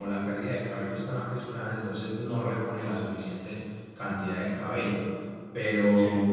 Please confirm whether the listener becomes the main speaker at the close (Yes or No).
No